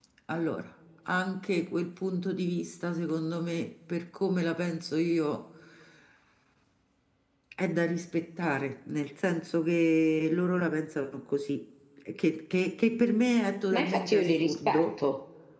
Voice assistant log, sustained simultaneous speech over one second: present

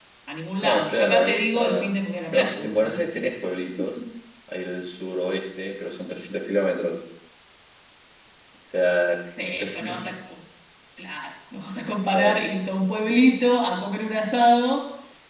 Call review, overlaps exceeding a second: present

